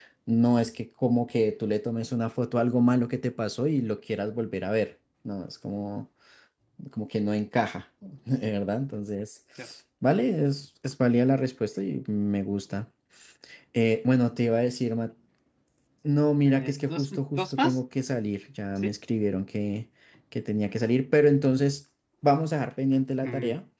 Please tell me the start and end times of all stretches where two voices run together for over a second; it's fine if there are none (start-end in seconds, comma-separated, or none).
16.4-17.8